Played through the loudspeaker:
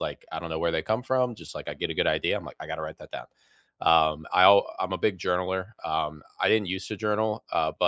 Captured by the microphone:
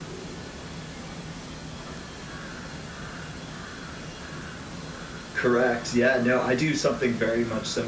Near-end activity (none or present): present